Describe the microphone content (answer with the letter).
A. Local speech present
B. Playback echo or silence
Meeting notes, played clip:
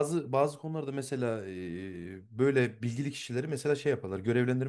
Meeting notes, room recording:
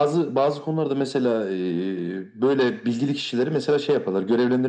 B